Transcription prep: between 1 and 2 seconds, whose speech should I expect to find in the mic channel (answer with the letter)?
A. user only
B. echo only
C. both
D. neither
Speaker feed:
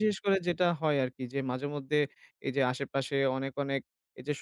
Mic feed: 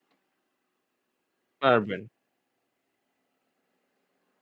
A